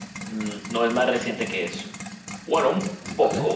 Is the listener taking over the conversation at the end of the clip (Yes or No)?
No